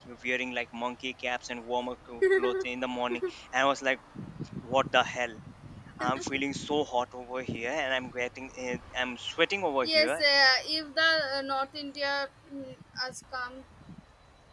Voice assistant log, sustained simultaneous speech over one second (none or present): none